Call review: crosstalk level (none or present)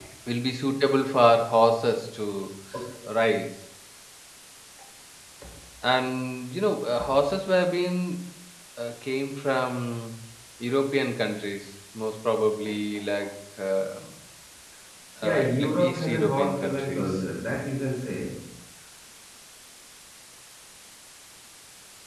present